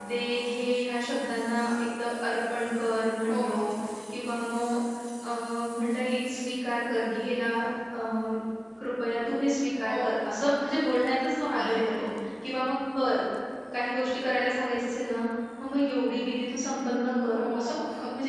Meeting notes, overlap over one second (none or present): none